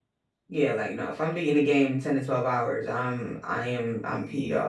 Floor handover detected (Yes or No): Yes